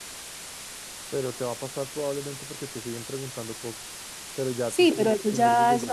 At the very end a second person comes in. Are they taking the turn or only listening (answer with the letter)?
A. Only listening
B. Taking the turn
B